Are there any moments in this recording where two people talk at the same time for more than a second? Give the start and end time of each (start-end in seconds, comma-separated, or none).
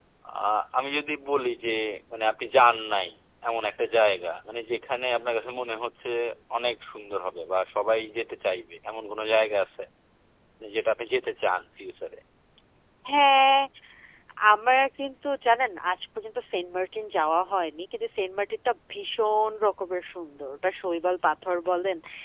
none